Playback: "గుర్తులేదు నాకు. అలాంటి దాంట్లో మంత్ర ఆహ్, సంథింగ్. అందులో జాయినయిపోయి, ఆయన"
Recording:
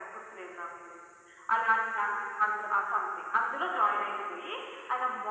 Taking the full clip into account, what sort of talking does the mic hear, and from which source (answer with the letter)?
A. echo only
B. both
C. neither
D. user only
A